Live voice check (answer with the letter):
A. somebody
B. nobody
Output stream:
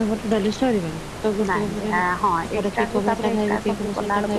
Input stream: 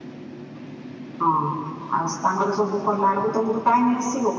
A